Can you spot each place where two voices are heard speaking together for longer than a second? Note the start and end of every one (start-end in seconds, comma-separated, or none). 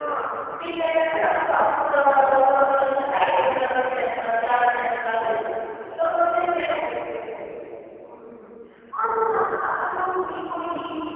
none